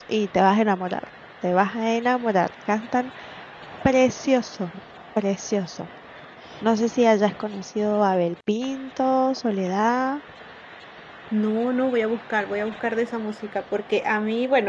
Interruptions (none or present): none